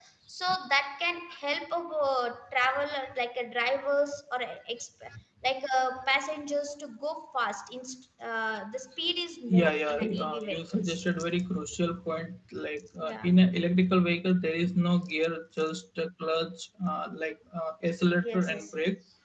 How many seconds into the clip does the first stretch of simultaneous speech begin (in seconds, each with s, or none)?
9.5 s